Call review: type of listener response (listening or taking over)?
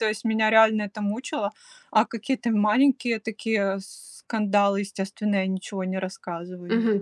taking over